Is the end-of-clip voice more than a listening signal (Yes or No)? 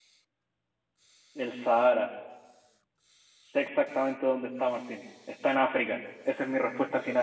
Yes